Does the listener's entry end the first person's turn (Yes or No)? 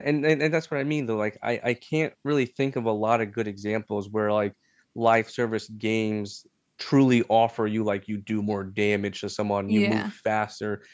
No